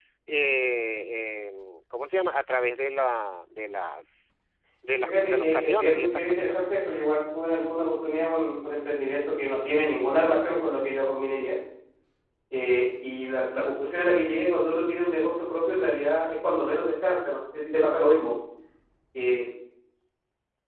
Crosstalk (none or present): present